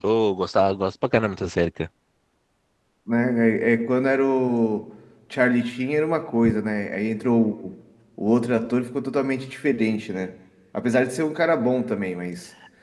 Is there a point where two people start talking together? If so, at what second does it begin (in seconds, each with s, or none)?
none